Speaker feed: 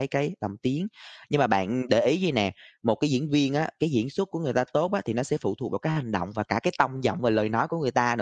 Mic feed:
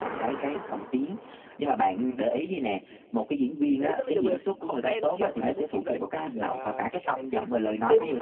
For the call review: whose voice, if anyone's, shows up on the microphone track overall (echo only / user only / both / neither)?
both